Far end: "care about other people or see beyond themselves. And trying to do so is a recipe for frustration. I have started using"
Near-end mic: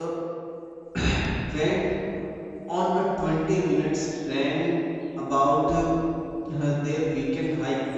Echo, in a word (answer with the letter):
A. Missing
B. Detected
A